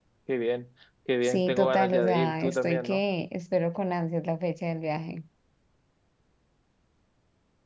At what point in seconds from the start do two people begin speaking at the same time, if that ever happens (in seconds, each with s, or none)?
1.2 s